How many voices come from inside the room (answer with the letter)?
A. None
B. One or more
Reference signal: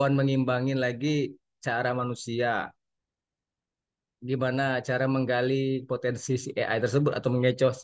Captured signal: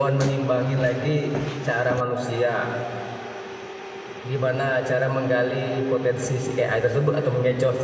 A